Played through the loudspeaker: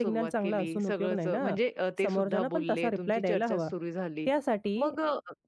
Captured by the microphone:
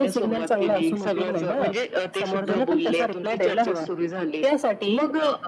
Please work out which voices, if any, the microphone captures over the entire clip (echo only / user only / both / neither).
echo only